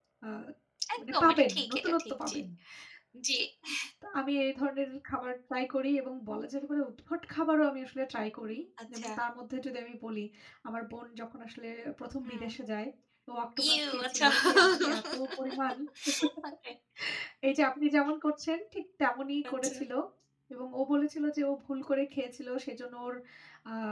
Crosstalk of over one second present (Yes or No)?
Yes